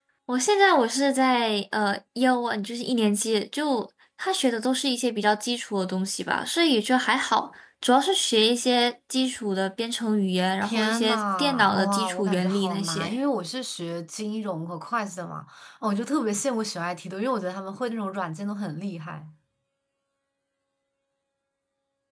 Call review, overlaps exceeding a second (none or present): present